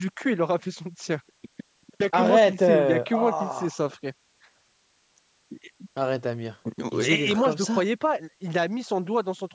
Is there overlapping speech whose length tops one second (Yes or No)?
Yes